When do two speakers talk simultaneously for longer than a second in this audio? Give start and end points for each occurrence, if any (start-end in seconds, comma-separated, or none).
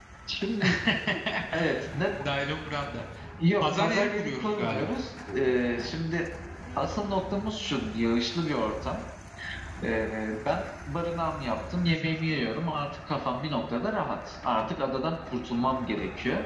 3.6-4.9